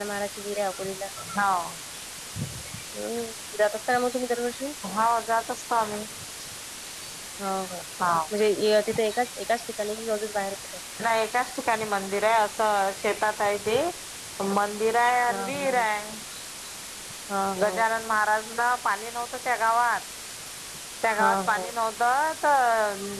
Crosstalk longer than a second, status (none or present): none